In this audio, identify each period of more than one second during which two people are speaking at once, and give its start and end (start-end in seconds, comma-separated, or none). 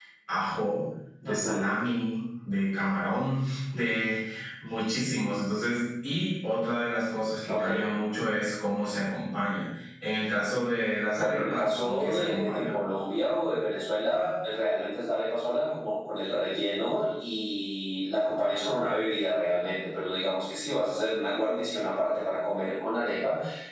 11.2-12.8